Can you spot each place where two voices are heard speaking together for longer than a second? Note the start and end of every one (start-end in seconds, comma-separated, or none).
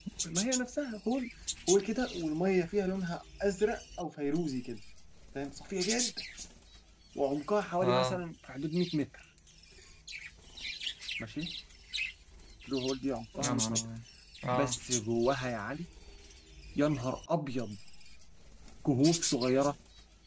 none